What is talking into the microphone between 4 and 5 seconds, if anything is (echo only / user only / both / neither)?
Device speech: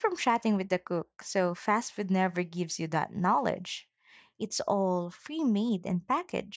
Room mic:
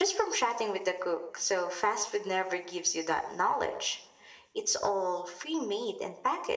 echo only